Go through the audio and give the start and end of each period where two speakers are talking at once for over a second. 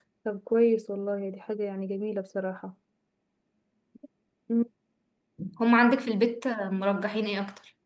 none

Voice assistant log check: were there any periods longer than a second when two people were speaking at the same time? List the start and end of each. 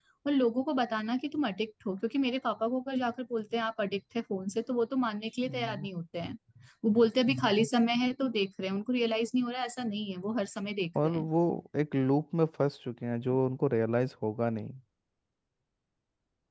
none

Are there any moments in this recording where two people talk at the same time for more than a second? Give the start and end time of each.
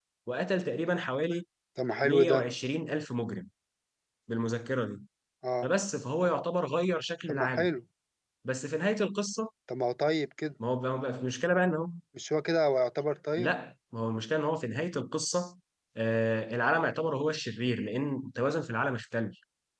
none

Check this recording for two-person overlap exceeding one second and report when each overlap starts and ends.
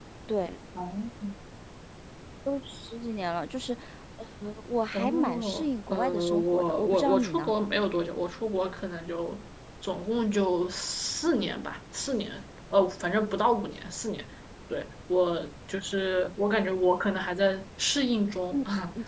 4.9-7.5

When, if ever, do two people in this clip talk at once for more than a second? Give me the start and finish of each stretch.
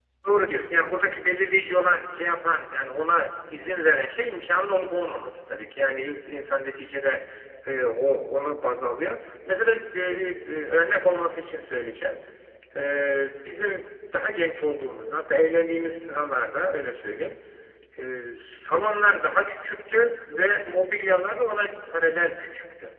none

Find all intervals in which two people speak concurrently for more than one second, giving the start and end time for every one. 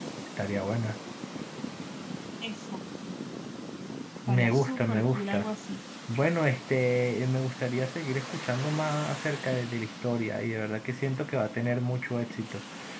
4.3-5.5

